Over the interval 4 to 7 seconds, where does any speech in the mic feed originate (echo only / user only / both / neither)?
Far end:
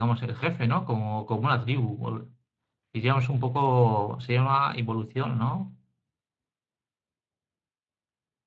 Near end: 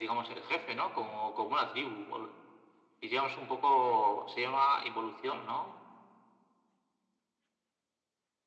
echo only